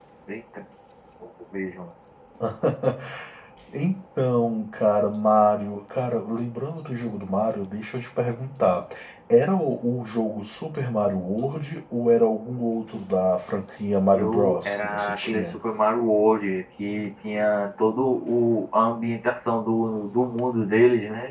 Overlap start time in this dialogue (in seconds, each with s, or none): 14.1 s